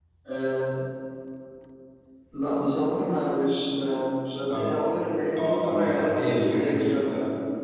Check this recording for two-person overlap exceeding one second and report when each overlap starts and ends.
5.4-7.1

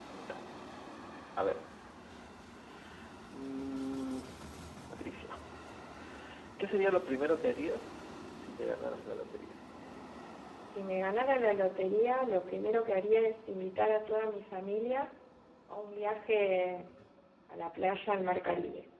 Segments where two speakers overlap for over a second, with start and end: none

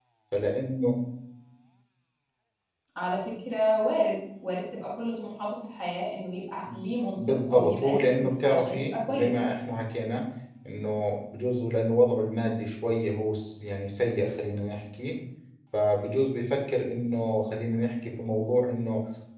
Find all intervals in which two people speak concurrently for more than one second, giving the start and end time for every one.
7.2-9.4

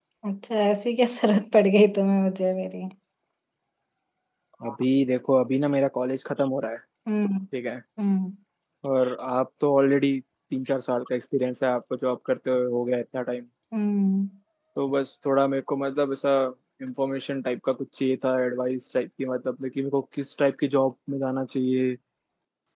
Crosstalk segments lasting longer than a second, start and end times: none

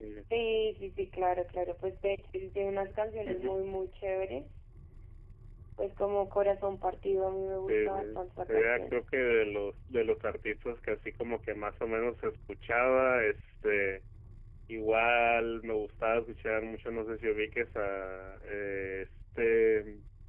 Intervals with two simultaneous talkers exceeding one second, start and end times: 7.7-9.0

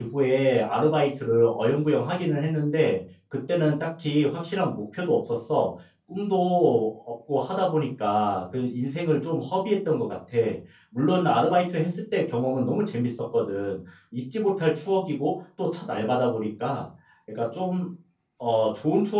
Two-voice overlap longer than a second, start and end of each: none

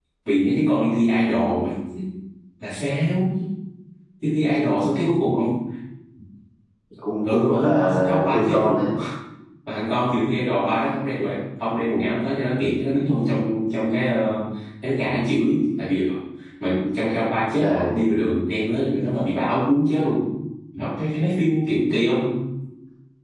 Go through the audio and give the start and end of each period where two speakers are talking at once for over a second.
7.3-8.8

